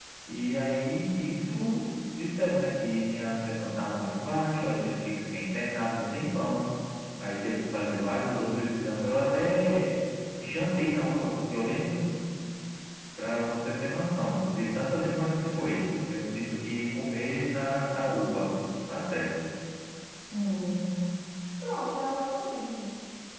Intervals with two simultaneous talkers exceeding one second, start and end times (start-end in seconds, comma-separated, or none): none